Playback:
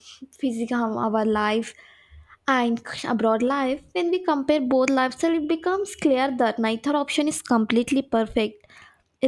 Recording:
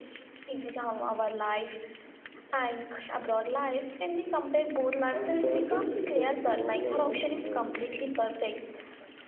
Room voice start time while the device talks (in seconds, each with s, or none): 5.1 s